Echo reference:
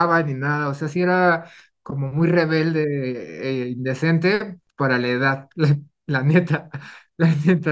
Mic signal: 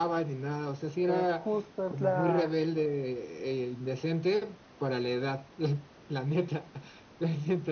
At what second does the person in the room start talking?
1.1 s

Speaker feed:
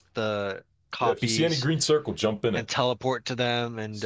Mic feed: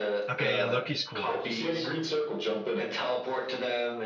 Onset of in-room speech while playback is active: 0.3 s

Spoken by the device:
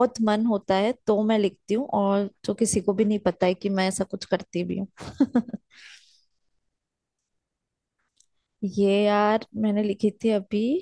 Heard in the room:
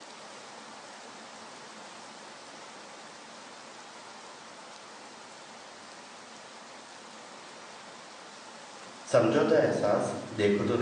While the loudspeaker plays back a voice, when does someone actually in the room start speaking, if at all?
9.1 s

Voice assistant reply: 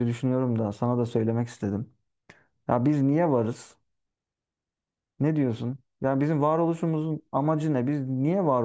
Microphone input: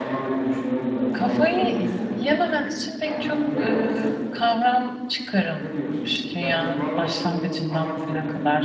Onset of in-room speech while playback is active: 1.1 s

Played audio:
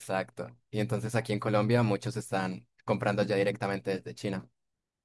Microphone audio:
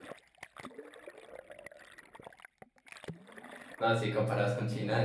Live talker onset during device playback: 3.8 s

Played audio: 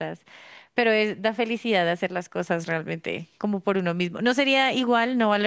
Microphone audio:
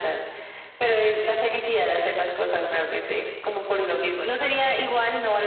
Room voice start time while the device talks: none

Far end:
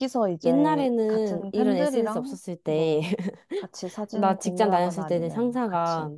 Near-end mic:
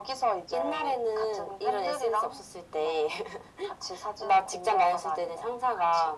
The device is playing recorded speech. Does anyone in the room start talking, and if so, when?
none

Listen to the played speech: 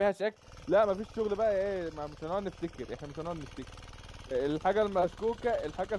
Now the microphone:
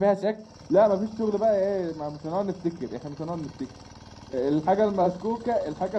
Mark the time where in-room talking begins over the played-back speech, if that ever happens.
none

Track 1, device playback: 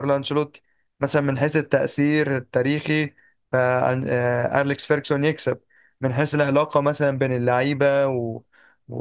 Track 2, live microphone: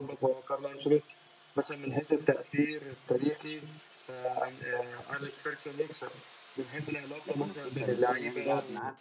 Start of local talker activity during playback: 7.2 s

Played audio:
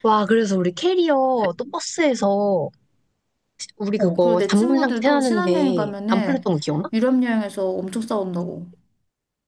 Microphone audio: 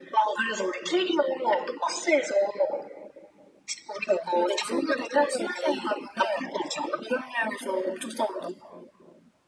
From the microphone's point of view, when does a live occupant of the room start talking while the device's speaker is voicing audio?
none

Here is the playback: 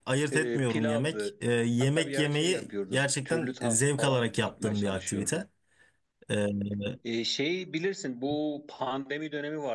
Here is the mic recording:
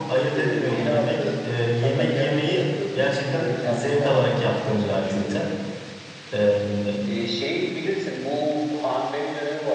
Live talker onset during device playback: none

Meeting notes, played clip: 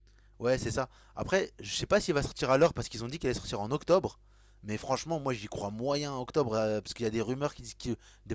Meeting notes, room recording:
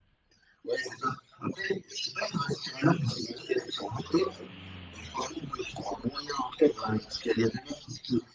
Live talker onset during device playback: none

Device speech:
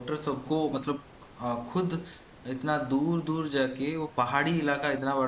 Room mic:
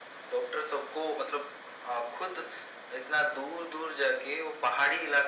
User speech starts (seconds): none

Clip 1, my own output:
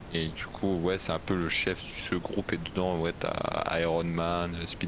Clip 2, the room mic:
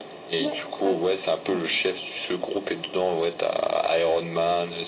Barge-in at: 0.4 s

